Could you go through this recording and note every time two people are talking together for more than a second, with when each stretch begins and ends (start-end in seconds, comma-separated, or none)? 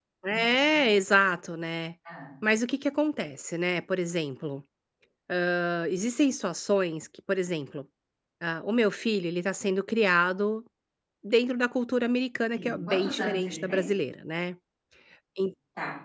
12.6-13.8